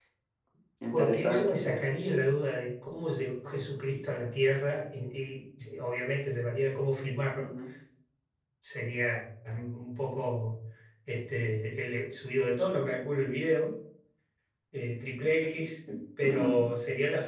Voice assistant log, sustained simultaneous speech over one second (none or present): present